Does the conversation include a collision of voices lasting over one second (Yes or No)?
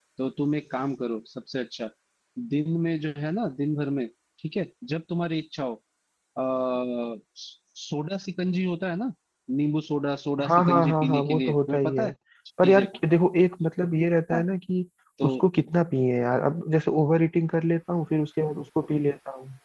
Yes